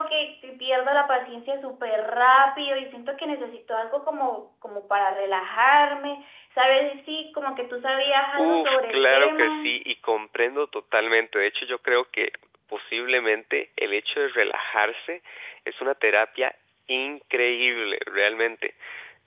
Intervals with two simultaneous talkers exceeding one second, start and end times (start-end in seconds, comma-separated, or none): 8.4-9.8